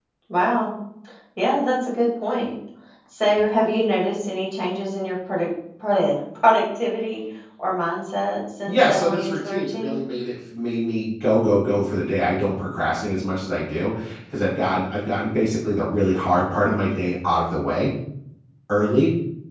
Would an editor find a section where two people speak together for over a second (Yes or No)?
Yes